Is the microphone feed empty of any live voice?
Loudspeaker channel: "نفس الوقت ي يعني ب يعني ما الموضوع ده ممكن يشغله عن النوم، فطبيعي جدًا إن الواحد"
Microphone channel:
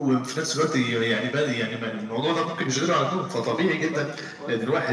No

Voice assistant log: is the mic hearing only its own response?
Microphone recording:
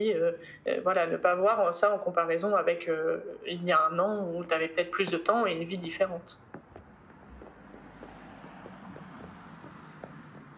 Yes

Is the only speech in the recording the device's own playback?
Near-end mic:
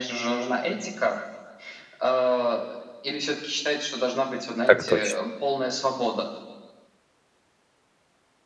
No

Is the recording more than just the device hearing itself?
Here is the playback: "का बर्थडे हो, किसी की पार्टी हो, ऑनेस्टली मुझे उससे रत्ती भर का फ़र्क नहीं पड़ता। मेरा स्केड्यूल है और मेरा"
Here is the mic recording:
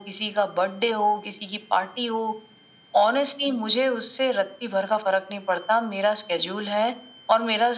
No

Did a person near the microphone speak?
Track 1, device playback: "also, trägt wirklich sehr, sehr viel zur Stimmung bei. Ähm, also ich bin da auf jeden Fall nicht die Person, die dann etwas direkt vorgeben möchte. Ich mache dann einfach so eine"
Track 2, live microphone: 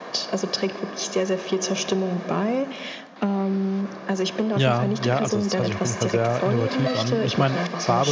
Yes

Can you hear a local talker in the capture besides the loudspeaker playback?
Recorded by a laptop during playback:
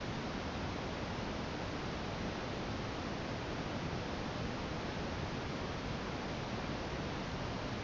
No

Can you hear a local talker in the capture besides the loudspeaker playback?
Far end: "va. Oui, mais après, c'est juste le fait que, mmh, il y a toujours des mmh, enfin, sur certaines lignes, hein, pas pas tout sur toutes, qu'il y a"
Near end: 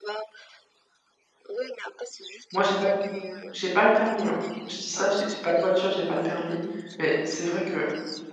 Yes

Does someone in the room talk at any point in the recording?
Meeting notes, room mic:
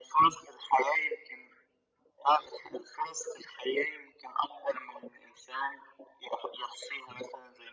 No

